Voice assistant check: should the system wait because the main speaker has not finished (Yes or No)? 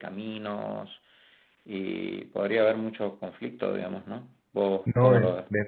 No